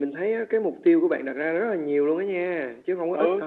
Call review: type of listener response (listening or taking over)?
taking over